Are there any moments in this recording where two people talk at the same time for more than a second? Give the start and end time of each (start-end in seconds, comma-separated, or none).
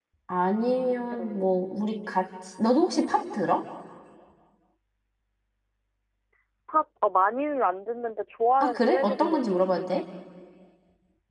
8.6-10.0